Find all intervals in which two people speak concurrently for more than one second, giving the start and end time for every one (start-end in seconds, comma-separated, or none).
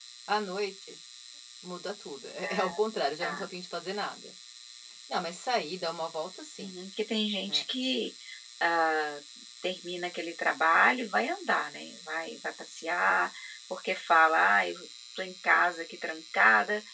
none